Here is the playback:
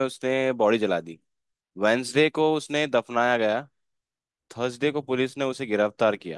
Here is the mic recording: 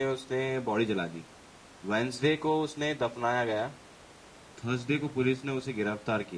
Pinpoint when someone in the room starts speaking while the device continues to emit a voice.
none

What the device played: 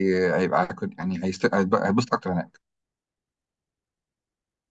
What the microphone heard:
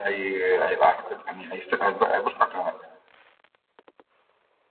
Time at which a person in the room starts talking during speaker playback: none

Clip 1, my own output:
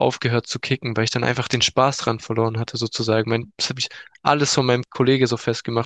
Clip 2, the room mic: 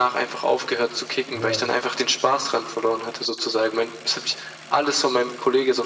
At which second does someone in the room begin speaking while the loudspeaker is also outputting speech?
1.3 s

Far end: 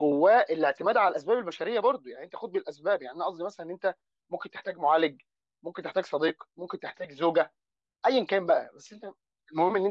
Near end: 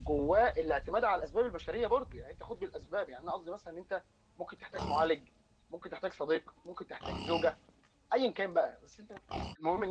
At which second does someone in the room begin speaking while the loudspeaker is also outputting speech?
none

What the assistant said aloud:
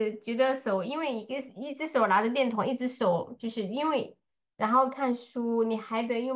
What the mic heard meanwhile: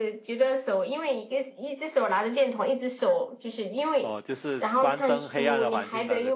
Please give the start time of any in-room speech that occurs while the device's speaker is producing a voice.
4.0 s

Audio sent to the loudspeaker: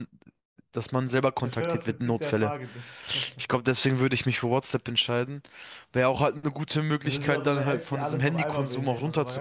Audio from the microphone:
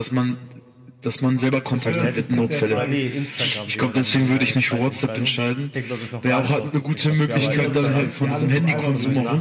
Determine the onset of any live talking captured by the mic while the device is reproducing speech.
1.8 s

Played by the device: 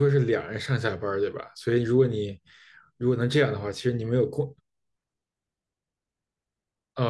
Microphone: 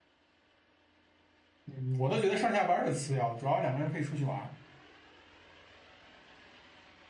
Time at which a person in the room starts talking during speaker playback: 1.7 s

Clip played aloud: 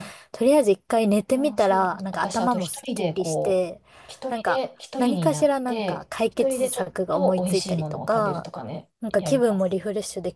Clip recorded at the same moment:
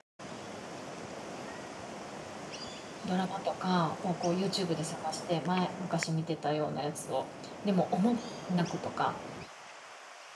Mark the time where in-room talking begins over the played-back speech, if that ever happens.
3.0 s

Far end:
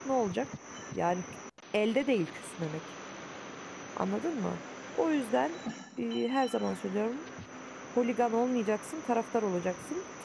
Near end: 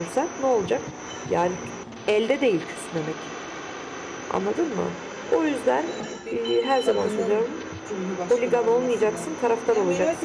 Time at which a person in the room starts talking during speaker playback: 5.8 s

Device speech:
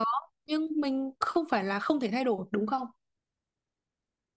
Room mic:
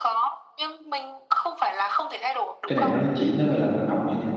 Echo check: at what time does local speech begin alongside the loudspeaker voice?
2.7 s

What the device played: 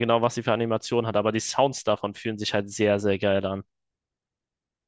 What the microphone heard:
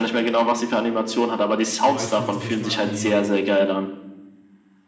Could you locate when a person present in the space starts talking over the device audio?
1.8 s

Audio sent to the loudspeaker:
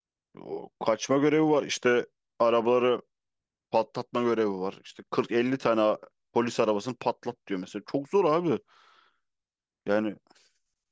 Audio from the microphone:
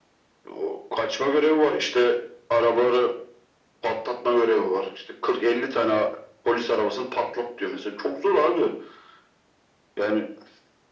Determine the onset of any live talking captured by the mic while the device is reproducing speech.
none

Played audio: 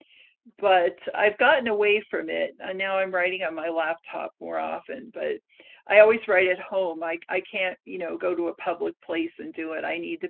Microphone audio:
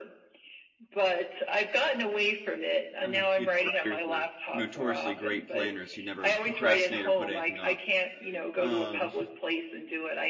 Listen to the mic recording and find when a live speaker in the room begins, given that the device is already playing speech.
3.0 s

